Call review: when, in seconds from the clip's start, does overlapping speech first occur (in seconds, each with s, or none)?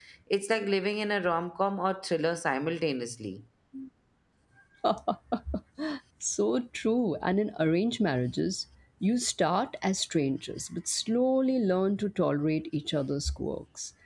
none